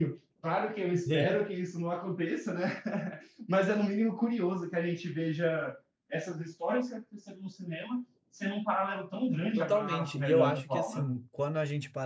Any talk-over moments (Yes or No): Yes